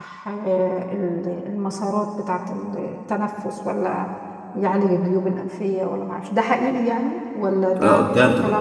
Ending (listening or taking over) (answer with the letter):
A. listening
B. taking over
B